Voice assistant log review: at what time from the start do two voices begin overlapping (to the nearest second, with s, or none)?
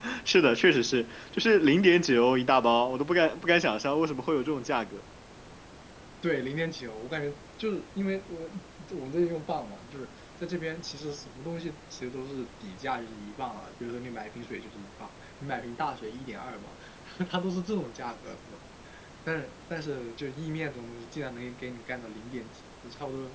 none